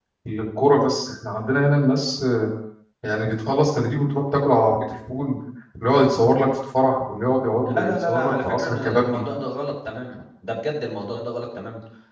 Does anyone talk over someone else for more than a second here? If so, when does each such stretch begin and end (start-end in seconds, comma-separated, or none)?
7.7-9.2